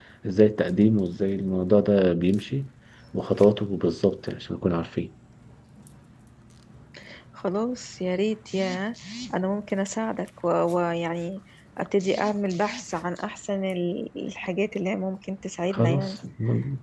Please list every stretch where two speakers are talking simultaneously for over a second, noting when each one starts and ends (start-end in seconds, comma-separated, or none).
none